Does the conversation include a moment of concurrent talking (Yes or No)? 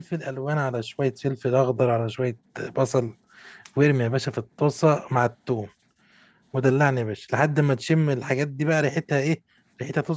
No